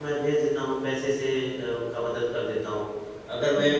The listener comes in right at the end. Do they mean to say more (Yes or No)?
No